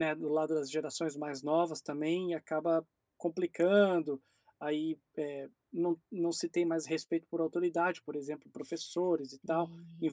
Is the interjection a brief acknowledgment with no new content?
No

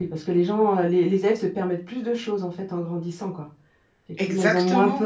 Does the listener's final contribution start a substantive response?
No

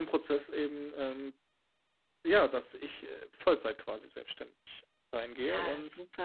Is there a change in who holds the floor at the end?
Yes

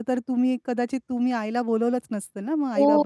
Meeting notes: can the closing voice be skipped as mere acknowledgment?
No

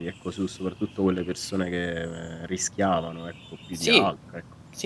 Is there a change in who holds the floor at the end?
Yes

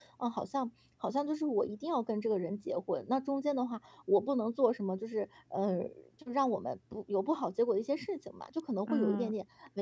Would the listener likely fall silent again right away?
Yes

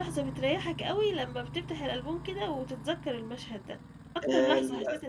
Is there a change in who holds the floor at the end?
Yes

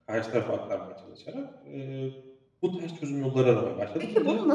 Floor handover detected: Yes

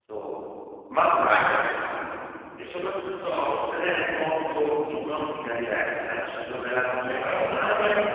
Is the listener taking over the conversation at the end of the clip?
Yes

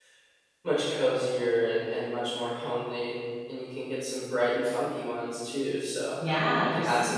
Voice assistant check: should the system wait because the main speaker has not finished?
No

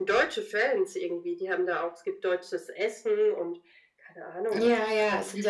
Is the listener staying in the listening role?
No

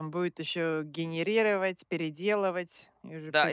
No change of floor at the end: No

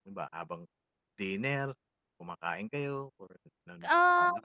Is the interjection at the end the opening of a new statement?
Yes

